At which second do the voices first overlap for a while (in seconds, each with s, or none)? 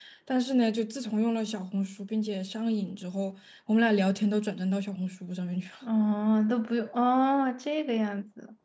none